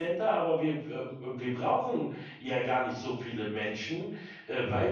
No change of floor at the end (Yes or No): Yes